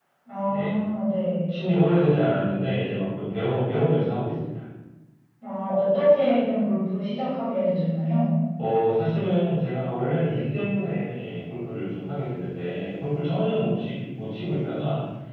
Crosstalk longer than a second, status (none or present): none